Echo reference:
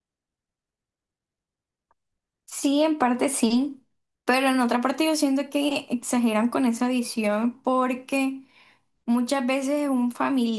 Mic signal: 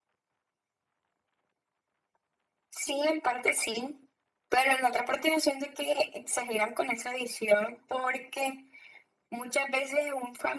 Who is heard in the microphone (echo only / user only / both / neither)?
echo only